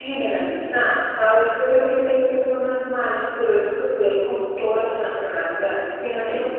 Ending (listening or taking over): listening